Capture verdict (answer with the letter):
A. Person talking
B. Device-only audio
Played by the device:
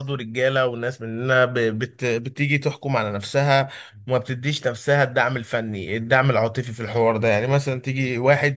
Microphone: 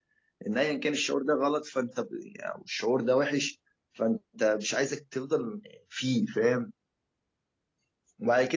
A